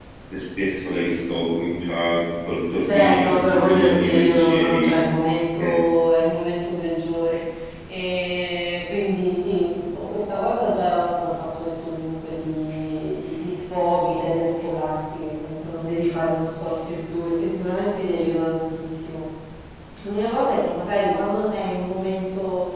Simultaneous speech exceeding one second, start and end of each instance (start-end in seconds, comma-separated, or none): 2.8-4.9